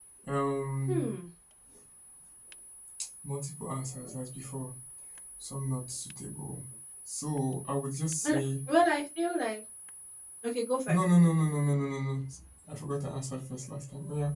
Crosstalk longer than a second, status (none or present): none